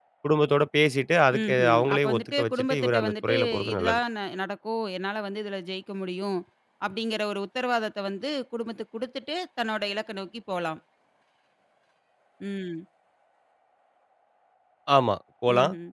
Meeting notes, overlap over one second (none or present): present